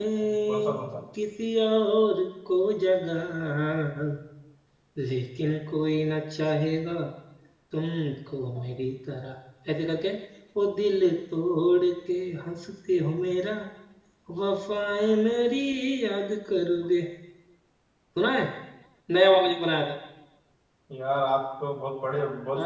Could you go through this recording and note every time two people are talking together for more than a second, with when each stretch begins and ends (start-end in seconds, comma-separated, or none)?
none